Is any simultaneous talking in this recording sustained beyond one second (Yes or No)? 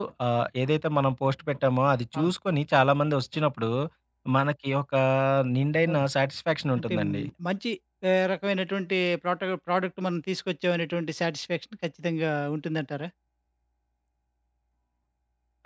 No